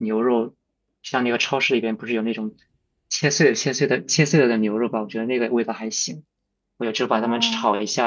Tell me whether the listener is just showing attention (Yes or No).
Yes